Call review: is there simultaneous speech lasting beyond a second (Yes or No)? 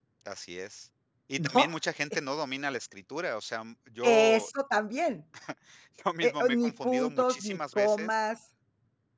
Yes